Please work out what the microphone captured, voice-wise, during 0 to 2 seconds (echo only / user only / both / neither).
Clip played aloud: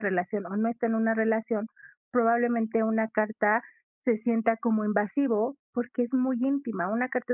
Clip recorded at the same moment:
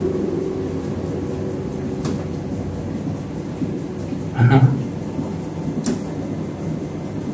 neither